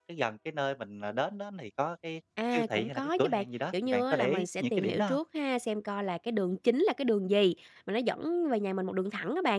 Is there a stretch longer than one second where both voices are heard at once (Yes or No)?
Yes